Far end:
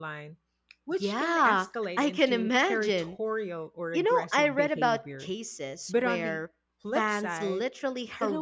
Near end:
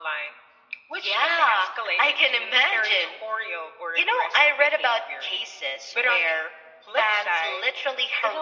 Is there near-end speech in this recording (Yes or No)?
No